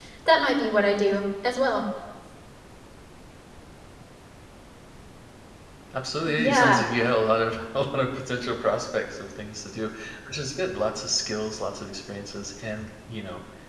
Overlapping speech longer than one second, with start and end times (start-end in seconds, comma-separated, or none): none